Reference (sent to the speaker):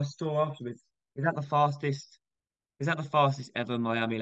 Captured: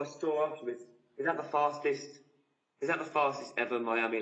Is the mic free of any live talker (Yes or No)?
Yes